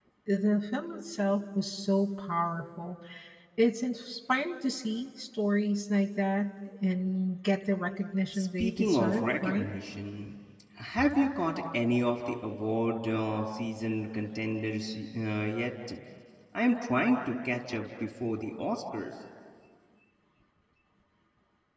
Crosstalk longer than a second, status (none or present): present